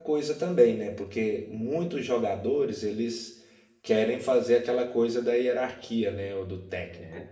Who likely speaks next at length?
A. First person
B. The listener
A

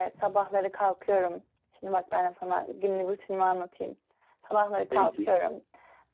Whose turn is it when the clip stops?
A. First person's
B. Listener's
A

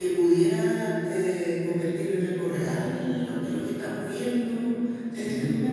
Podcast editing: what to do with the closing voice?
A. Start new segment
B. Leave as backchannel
A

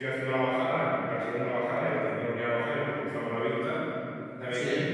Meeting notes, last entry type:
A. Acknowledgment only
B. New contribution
A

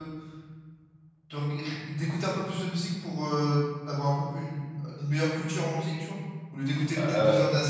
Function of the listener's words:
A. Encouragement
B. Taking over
A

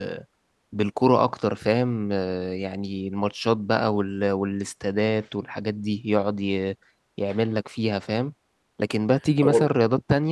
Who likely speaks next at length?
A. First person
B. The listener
A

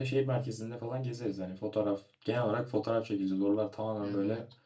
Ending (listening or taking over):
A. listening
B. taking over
A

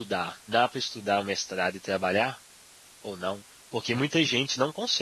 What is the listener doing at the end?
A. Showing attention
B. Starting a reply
A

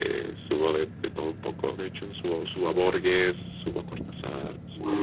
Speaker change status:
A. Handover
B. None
A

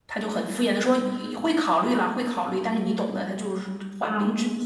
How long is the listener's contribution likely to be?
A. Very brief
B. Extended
A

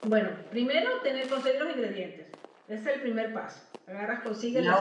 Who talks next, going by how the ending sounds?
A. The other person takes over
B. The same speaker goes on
B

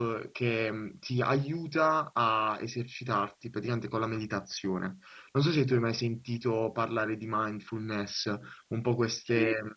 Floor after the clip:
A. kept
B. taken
A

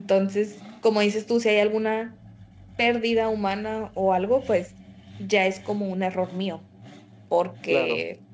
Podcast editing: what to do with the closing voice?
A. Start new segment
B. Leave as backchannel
B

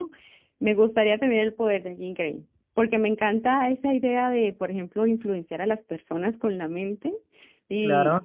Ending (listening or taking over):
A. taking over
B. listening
B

